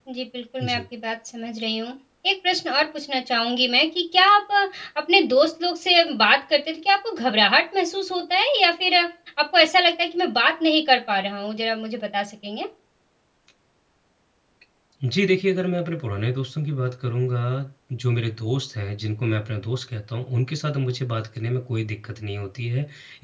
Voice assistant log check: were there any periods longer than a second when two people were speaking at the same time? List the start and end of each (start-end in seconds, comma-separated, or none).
none